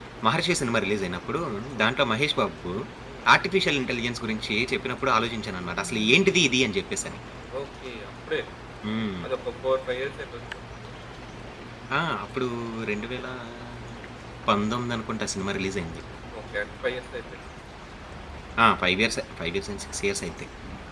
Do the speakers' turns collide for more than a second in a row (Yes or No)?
No